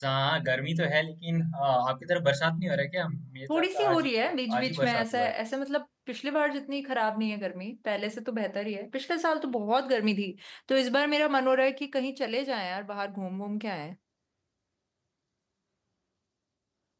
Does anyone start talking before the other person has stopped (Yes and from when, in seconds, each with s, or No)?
Yes, from 3.5 s